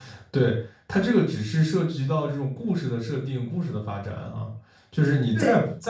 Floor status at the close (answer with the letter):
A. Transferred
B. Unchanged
B